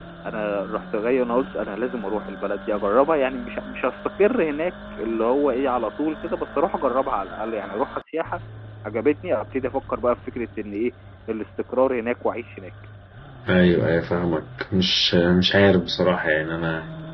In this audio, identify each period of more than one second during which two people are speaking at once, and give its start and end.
none

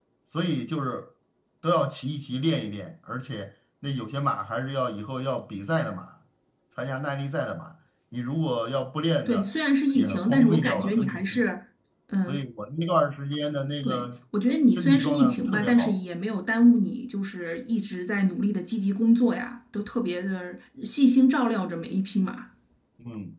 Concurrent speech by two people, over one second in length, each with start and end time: 9.9-11.5, 14.8-16.0

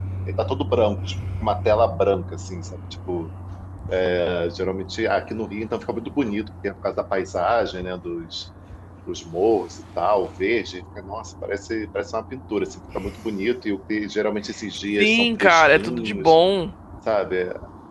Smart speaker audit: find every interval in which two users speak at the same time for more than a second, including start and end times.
15.0-16.4

